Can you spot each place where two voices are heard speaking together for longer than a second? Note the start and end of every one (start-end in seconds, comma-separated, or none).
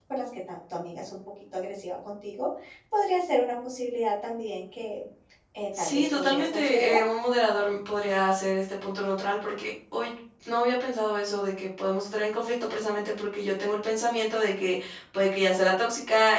5.8-7.0